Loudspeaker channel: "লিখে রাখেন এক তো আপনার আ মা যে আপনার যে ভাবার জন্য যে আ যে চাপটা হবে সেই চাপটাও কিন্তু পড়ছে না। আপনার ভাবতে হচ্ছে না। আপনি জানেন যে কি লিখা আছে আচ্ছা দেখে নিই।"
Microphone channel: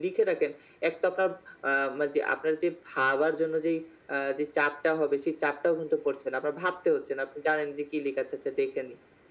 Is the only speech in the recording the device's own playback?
Yes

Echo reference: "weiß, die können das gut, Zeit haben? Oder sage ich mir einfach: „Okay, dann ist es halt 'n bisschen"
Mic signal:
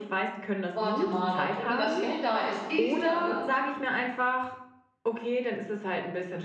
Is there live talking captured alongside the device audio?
Yes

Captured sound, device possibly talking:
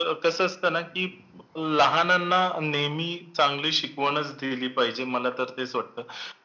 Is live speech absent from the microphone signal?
Yes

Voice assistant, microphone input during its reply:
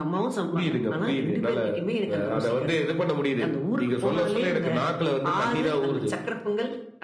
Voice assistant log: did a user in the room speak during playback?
No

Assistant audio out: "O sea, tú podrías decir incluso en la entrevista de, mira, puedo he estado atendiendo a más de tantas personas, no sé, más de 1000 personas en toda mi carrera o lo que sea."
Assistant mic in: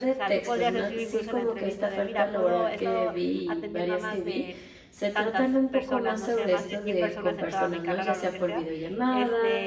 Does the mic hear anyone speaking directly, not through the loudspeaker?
Yes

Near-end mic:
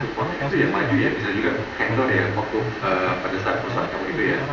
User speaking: Yes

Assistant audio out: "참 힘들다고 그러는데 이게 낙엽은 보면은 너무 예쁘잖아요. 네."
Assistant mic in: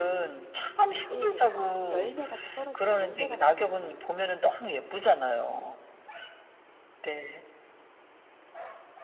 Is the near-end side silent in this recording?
No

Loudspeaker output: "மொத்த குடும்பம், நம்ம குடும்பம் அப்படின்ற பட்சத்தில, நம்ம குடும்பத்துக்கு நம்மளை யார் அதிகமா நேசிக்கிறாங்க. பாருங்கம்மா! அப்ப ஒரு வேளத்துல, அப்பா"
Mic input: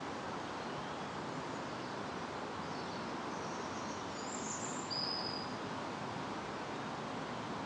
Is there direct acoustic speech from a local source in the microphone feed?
No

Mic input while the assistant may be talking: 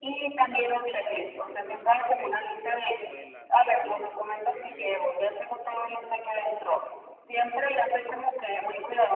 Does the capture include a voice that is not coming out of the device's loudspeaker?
Yes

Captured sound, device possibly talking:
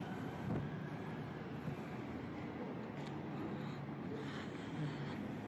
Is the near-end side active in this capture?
No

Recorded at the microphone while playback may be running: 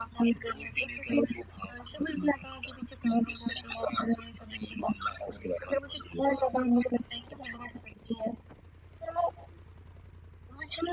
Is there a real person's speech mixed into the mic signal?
No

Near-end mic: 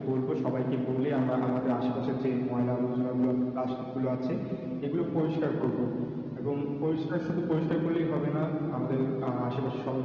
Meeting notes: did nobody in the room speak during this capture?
Yes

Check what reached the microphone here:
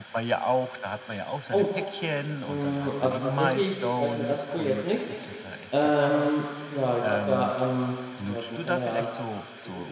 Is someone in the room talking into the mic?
Yes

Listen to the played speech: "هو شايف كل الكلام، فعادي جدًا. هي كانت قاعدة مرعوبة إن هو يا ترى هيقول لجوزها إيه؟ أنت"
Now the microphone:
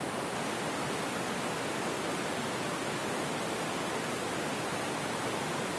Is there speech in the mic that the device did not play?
No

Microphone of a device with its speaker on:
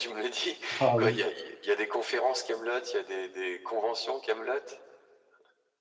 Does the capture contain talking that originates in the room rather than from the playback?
Yes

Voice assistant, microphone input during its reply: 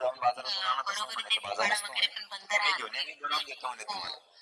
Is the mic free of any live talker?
Yes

